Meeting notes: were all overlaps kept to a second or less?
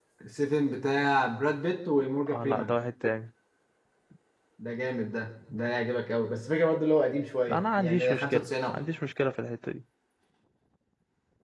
No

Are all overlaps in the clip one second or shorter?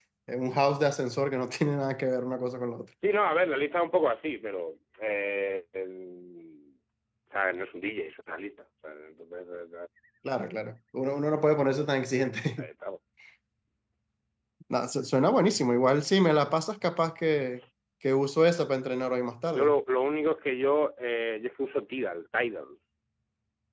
Yes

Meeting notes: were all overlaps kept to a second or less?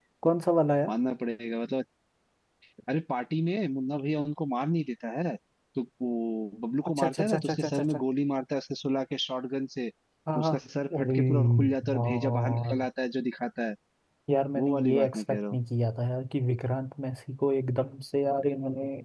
No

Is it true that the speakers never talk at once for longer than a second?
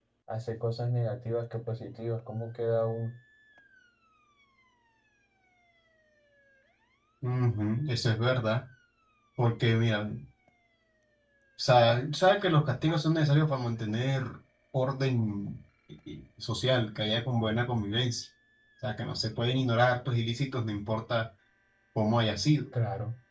Yes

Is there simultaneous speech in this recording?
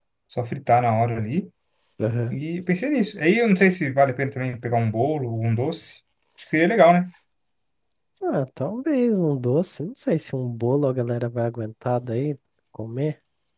No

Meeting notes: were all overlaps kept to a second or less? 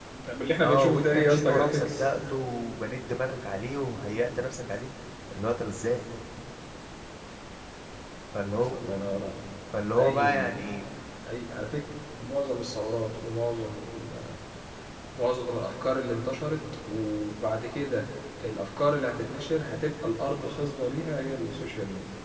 No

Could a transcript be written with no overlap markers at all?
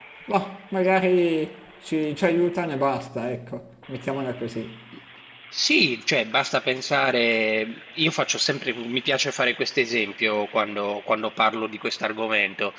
Yes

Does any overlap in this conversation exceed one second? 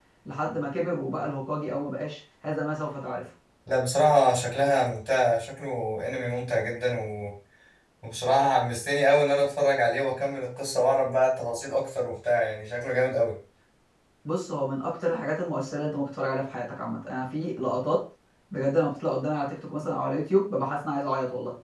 No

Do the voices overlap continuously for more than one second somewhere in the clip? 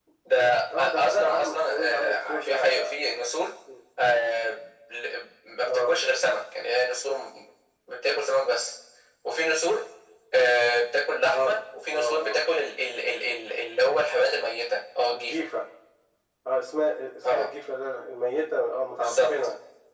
Yes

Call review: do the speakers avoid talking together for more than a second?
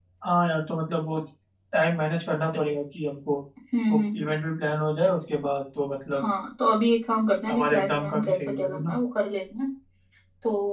No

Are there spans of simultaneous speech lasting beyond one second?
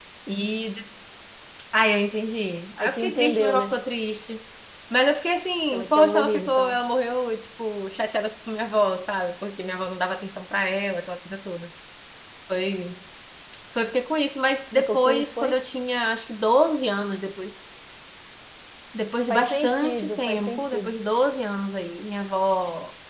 Yes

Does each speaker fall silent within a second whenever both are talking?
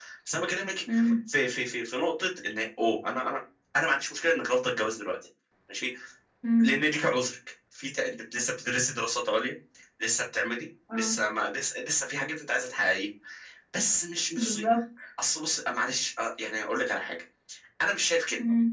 Yes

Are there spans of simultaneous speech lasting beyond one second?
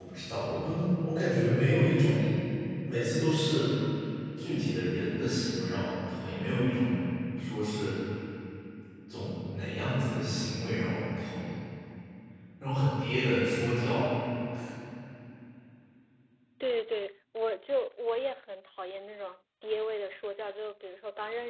No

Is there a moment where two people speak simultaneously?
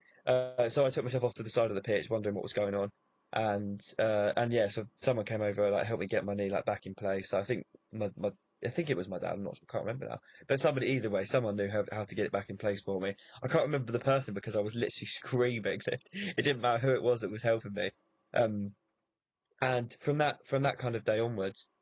No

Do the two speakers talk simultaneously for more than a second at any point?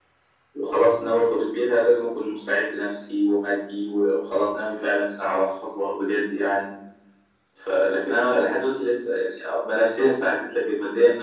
No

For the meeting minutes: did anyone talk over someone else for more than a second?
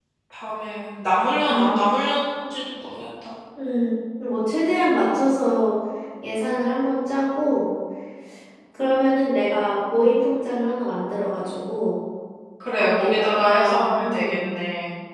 Yes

